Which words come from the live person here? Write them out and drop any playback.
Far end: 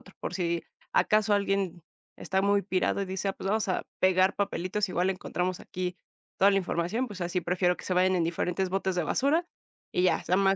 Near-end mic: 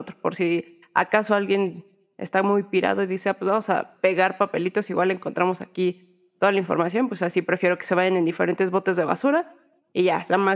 none

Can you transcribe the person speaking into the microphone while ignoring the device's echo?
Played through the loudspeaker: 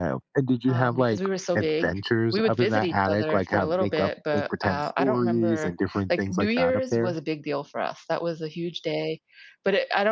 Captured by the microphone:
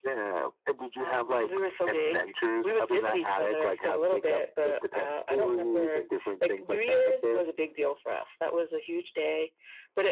none

